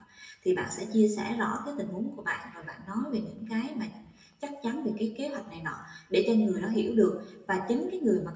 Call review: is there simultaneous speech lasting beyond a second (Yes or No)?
No